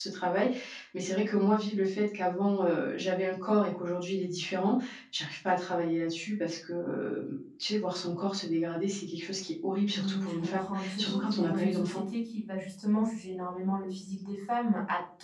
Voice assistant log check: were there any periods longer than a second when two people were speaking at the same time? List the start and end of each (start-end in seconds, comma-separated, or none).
9.9-12.0